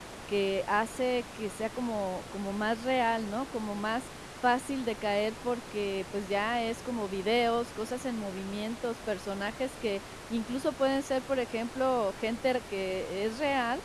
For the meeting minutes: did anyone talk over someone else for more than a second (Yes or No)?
No